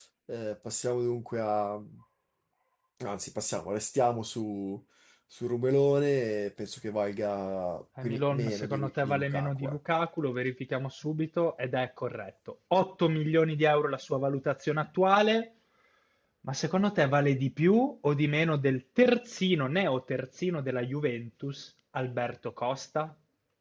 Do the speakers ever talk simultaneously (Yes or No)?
Yes